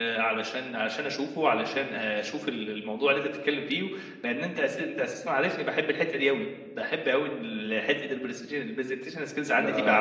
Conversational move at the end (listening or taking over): taking over